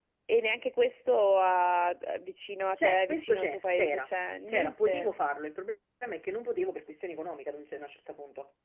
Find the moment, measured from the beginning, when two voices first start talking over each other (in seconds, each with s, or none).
2.8 s